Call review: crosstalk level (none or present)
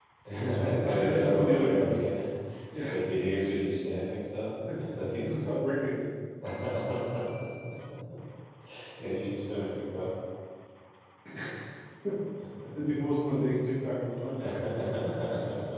present